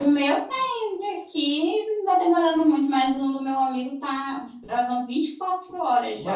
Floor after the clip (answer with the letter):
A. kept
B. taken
B